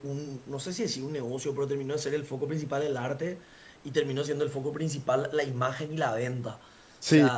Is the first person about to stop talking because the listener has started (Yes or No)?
No